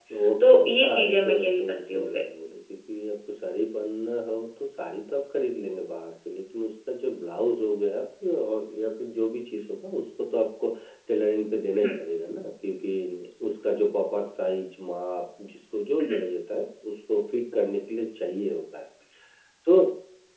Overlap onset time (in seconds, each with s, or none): 0.5 s